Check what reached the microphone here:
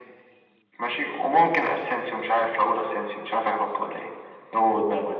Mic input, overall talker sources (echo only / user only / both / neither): echo only